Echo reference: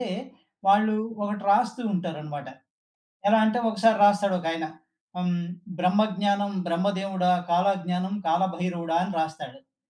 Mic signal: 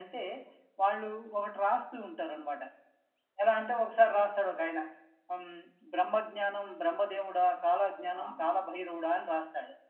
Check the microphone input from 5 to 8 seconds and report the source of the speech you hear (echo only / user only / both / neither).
echo only